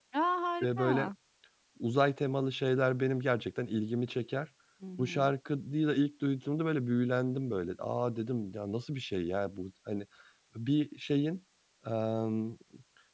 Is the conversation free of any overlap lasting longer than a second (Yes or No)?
Yes